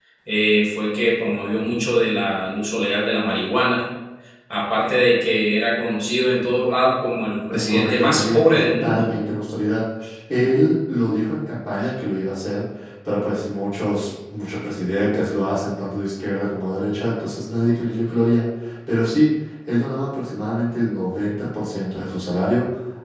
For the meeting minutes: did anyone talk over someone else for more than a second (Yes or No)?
Yes